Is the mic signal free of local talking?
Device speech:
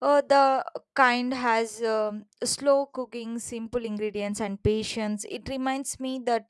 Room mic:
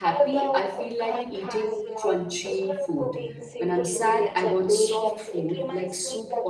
No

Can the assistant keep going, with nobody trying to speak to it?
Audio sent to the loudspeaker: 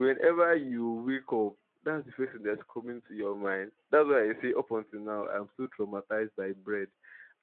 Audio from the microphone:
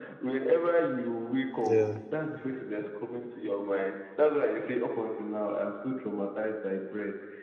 No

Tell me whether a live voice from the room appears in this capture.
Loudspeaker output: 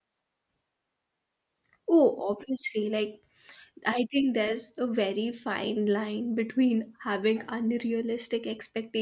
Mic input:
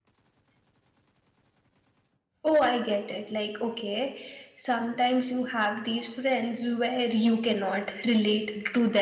Yes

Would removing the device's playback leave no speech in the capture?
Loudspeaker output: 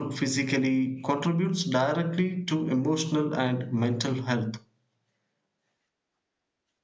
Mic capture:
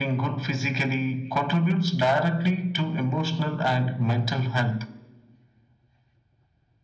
Yes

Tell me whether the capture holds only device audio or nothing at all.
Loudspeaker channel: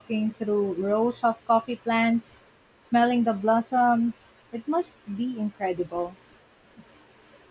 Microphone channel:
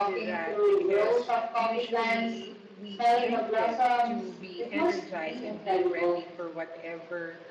No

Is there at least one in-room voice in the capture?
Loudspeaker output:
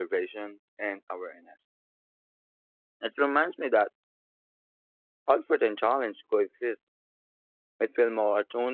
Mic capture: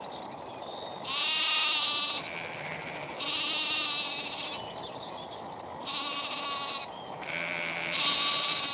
No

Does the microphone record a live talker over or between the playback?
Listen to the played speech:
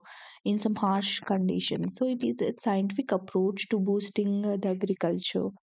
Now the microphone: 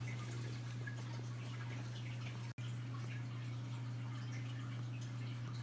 No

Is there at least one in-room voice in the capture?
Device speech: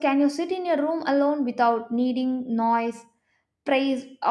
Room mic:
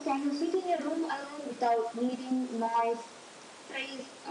No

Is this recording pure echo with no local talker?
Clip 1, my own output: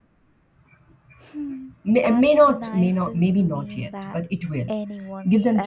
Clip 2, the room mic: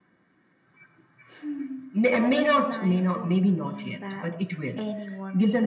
Yes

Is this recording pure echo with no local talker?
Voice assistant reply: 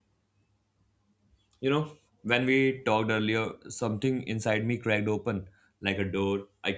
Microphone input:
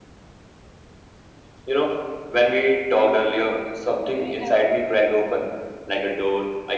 No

